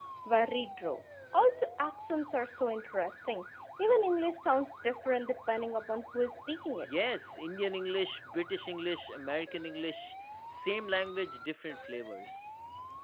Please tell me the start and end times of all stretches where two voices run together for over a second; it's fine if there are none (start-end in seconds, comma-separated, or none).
none